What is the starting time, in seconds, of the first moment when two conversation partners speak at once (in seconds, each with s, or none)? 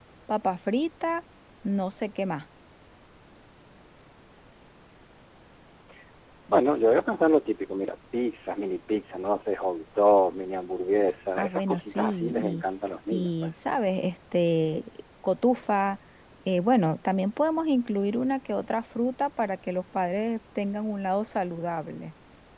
11.4 s